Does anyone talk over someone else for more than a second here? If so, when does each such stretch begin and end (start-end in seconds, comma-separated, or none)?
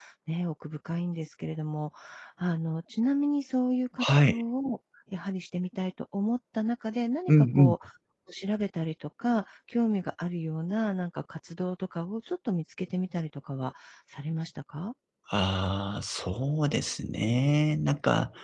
none